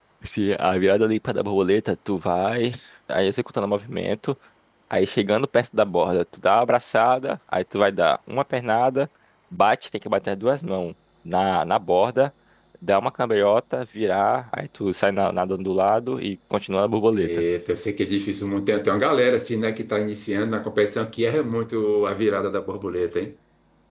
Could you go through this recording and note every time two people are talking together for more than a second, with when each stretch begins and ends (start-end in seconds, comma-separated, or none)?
none